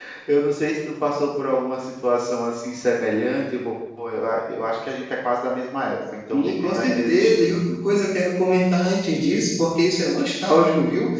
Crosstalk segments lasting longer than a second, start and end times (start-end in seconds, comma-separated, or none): 6.3-7.6